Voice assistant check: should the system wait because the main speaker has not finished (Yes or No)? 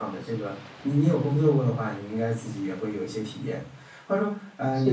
Yes